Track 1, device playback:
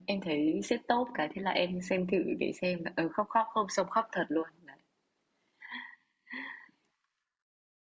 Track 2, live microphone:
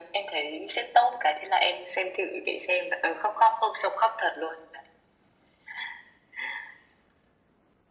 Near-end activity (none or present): none